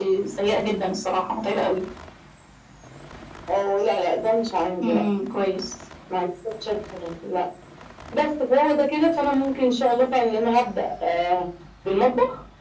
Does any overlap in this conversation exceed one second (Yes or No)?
No